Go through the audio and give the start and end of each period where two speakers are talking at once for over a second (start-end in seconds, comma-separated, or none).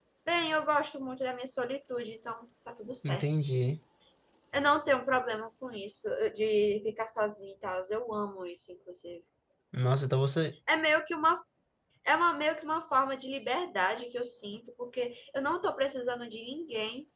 none